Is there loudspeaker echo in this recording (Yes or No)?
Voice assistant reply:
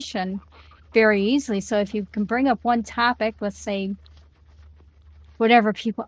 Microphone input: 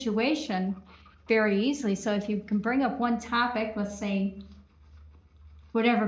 Yes